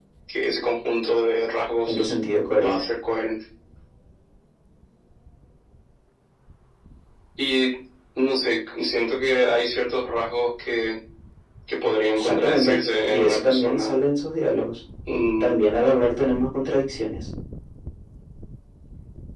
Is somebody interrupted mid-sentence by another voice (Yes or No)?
Yes